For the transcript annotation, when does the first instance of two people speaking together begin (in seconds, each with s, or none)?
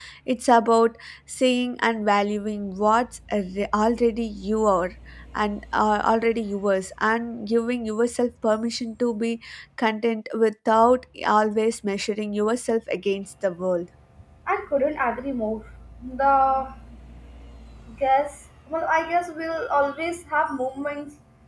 none